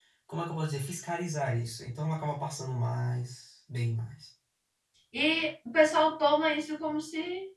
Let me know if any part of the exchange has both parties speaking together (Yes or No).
No